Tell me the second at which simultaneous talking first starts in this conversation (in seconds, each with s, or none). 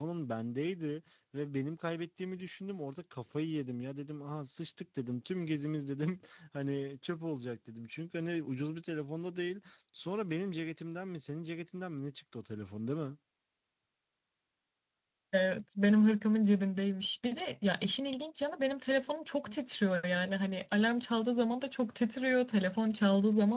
none